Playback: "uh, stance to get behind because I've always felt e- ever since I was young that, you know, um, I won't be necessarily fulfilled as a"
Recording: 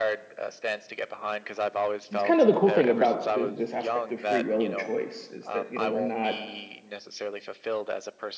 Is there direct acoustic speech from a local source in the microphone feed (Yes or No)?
Yes